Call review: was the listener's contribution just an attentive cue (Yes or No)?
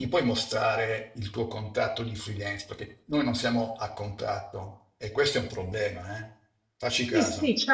No